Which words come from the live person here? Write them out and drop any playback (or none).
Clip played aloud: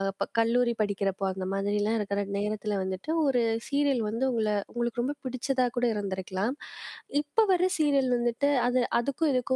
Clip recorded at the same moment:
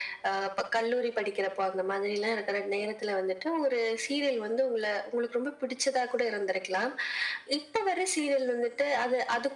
none